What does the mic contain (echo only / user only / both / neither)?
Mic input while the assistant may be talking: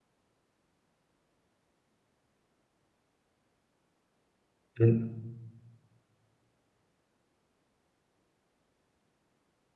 user only